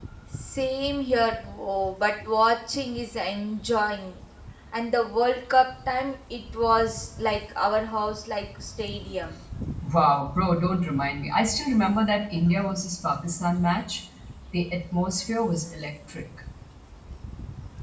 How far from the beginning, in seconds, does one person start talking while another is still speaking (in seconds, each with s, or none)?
none